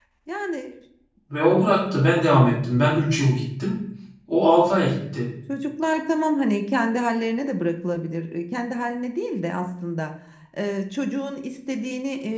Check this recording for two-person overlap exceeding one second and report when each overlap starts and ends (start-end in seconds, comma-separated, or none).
none